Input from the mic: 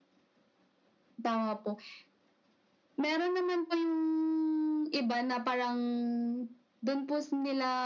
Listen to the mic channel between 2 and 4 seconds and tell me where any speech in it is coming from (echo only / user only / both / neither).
echo only